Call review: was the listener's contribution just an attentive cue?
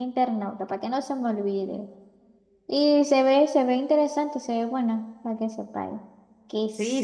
No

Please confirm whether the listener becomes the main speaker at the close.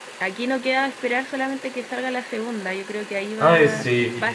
No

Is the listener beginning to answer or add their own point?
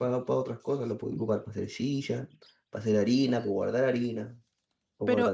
Yes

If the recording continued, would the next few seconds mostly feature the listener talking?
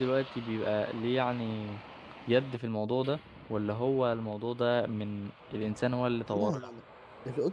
Yes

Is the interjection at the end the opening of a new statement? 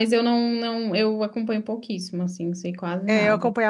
Yes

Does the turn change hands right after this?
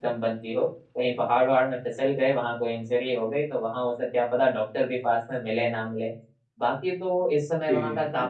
No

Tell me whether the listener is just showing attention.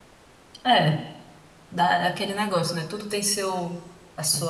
Yes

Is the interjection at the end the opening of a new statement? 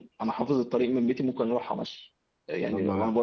No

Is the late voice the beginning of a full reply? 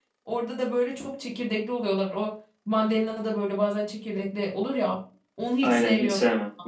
Yes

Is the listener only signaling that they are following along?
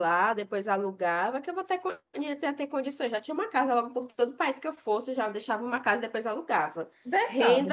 No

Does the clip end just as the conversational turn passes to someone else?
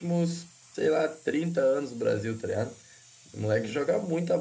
No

